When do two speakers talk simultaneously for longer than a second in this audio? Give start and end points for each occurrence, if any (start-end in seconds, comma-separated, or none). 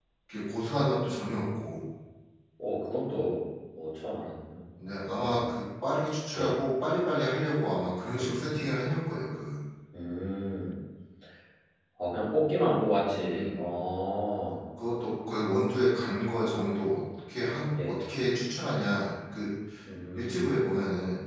none